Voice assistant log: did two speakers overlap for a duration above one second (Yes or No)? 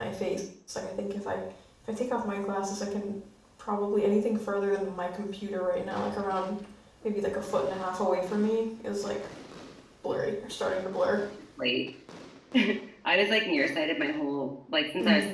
No